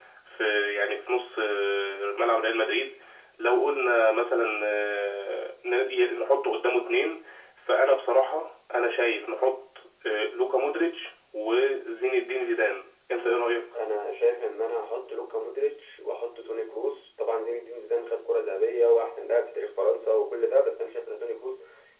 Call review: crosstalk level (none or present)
none